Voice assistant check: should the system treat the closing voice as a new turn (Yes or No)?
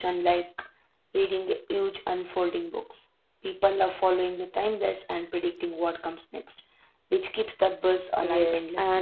Yes